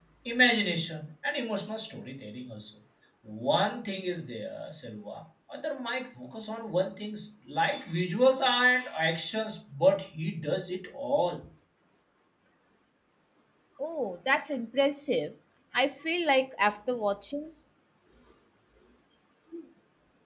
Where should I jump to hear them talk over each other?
none

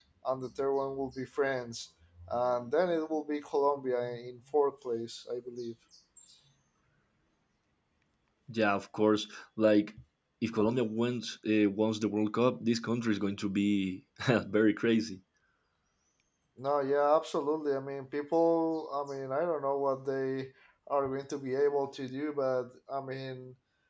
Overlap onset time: none

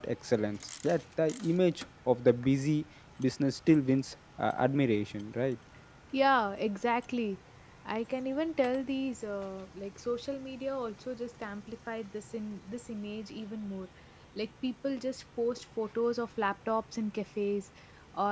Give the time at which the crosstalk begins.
none

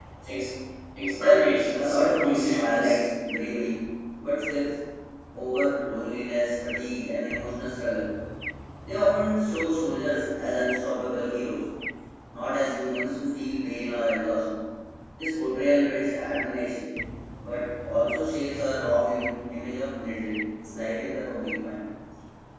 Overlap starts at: 1.2 s

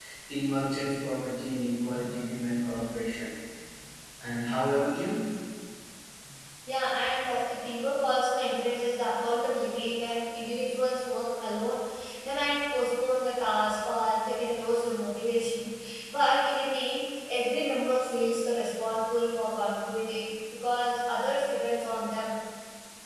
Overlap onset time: none

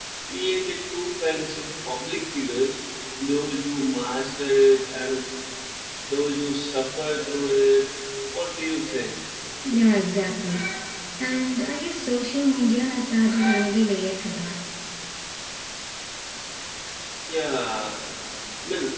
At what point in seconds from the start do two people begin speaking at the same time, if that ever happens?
none

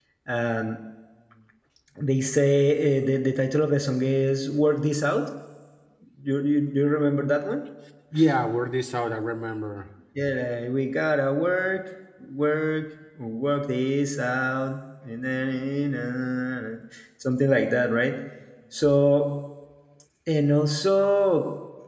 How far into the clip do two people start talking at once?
none

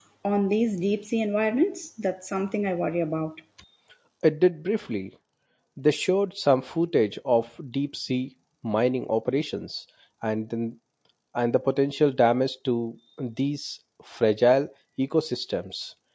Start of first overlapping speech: none

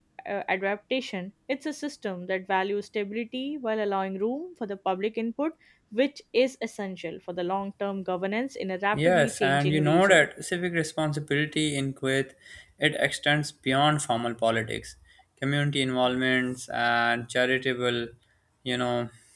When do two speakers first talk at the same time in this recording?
8.9 s

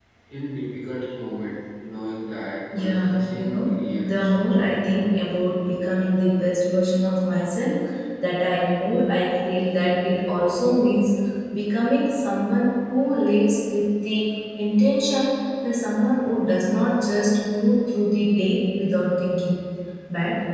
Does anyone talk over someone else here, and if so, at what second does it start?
2.7 s

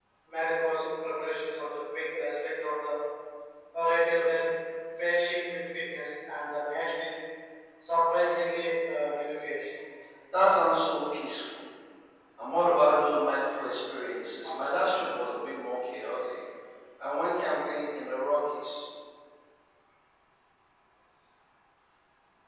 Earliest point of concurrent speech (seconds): none

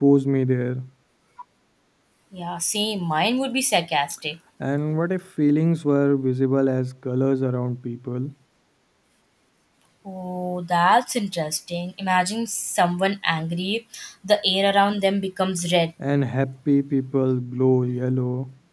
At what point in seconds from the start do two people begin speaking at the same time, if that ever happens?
none

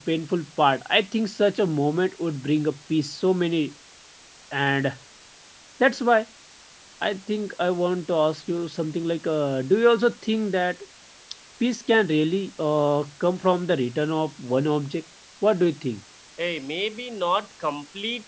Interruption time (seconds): none

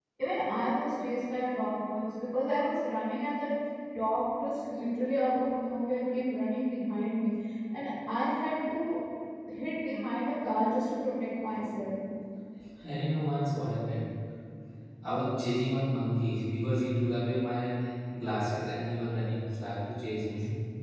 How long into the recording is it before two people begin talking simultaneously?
none

